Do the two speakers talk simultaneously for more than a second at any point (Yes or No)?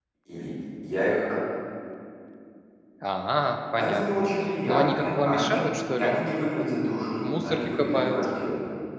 Yes